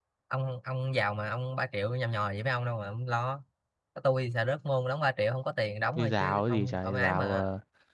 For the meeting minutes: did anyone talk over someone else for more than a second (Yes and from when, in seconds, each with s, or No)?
Yes, from 6.0 s